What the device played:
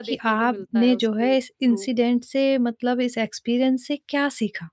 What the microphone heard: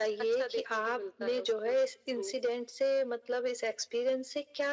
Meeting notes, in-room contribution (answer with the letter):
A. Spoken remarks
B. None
B